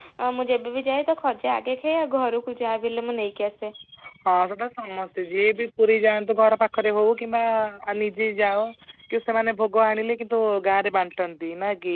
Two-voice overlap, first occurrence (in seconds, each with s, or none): none